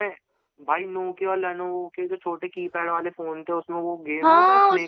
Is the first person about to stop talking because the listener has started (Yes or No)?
Yes